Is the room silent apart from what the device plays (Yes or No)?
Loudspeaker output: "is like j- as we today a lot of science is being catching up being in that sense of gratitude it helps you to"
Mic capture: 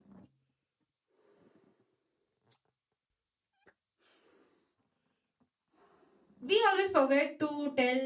No